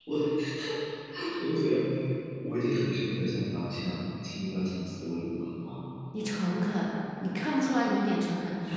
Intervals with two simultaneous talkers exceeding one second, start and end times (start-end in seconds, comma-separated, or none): none